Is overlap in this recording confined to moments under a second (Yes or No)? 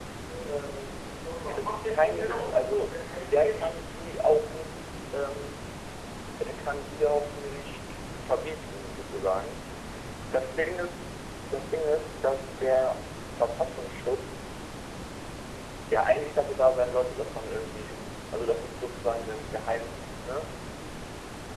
No